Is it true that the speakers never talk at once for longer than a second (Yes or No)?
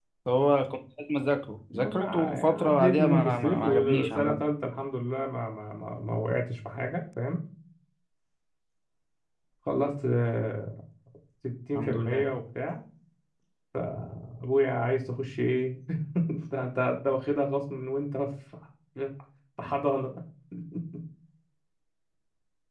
No